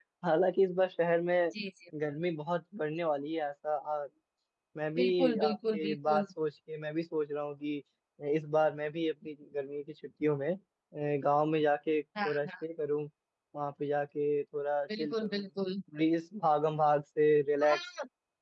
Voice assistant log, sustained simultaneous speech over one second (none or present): present